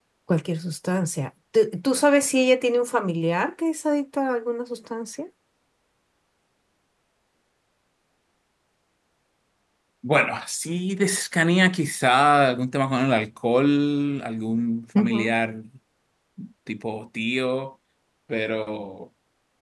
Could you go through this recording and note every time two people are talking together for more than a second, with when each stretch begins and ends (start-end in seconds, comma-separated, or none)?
none